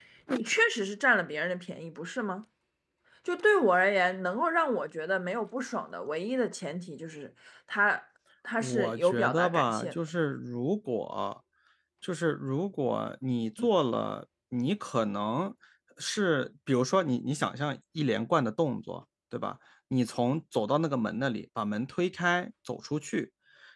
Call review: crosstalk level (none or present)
present